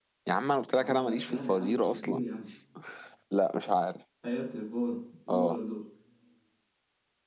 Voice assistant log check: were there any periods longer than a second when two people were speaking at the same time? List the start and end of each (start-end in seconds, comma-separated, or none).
0.7-2.2